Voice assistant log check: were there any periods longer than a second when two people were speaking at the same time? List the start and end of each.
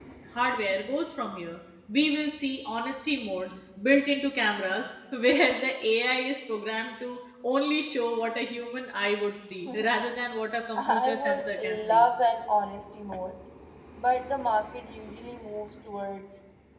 10.8-12.1

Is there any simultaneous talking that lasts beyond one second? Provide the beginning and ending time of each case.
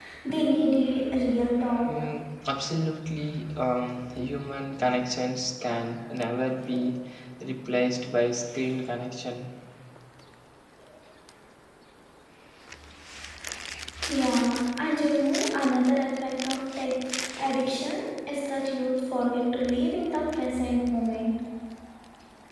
none

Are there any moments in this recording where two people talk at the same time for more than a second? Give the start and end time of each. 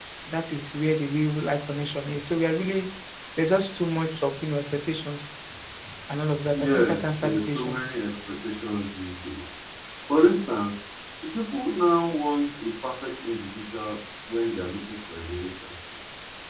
6.5-7.9

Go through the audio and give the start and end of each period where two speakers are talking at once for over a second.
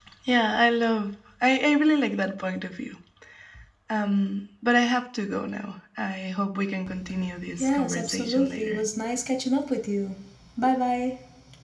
7.6-8.8

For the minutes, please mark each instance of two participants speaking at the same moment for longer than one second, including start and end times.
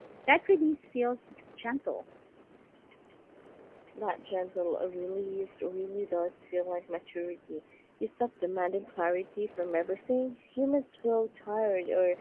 none

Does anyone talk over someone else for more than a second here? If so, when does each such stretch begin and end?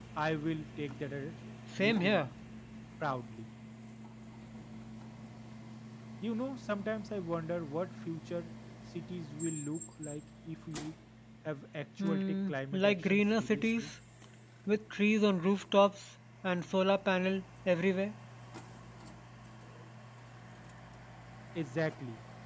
12.0-13.9

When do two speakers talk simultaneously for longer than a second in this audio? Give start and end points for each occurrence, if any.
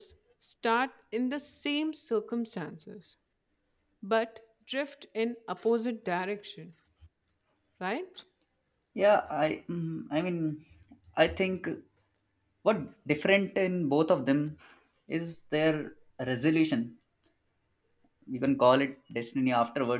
none

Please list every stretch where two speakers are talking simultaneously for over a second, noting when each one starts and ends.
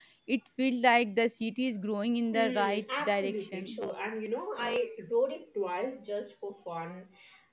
2.3-3.8

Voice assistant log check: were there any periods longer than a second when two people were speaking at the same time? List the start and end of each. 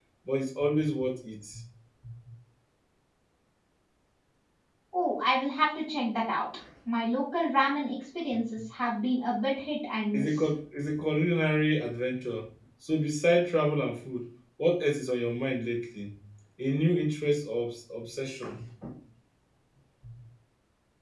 none

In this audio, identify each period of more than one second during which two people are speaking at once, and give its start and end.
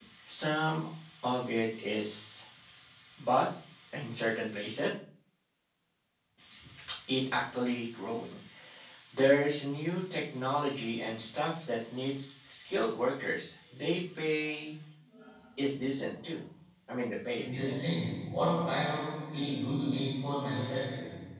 none

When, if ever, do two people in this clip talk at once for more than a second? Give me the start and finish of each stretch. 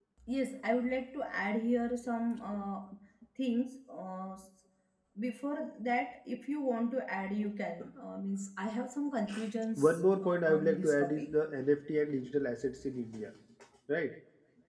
9.8-11.3

